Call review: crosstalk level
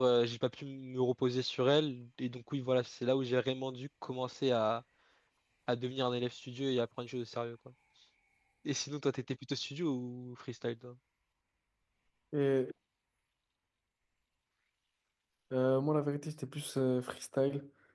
none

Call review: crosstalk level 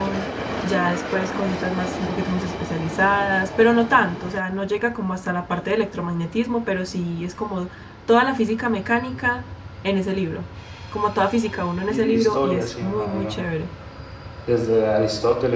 present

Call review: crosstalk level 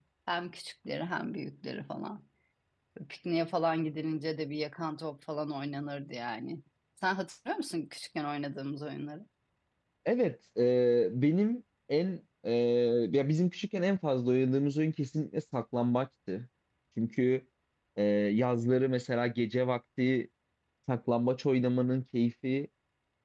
none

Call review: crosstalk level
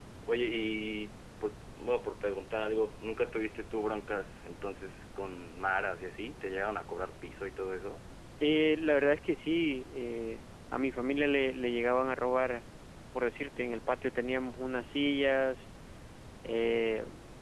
none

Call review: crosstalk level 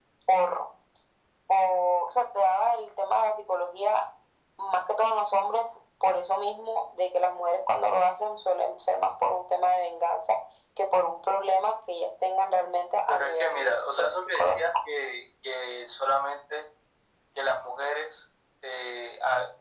present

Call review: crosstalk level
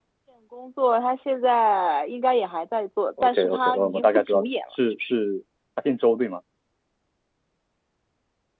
present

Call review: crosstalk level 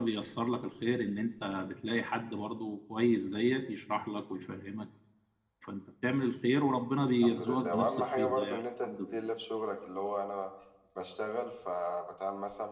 present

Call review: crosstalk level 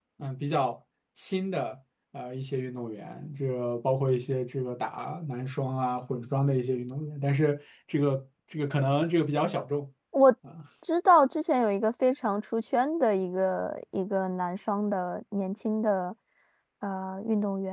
none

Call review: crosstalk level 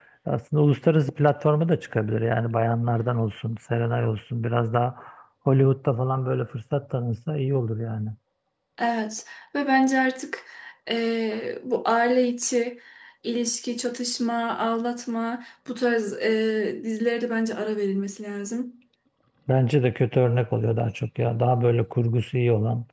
none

